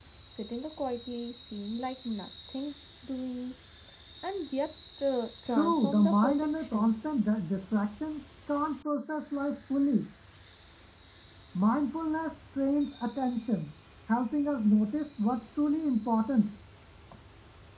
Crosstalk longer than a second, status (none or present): present